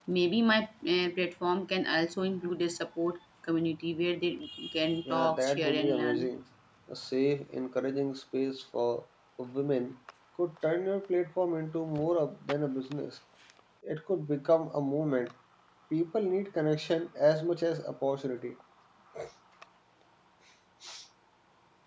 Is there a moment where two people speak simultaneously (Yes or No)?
Yes